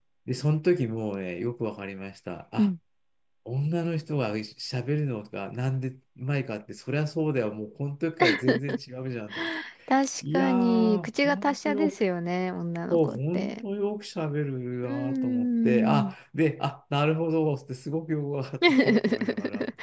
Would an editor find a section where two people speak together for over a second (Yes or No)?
Yes